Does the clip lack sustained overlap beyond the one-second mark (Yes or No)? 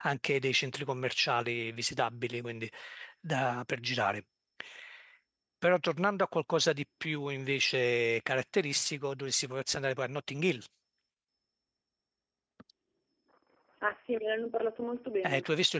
Yes